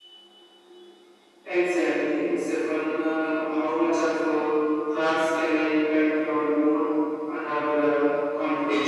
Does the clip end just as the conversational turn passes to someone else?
Yes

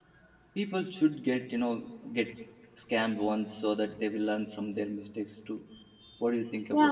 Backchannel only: No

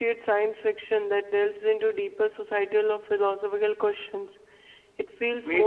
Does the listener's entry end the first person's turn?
Yes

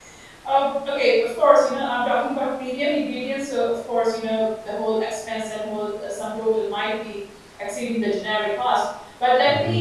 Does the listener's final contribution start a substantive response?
No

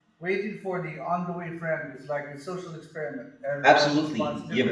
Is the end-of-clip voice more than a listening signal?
Yes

